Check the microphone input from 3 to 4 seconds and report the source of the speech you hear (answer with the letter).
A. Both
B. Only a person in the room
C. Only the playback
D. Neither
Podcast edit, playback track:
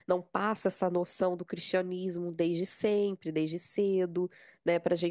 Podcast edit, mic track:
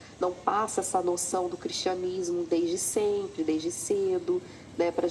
C